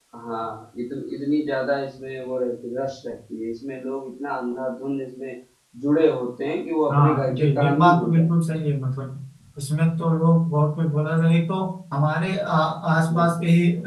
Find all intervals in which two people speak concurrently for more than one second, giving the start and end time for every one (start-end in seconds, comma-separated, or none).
6.9-8.6